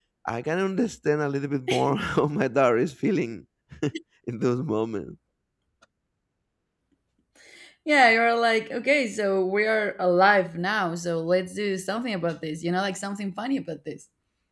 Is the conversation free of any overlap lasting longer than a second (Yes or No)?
Yes